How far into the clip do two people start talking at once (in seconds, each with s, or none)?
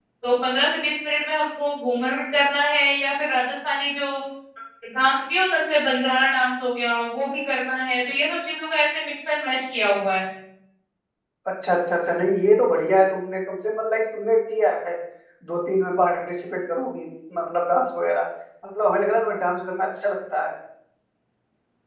none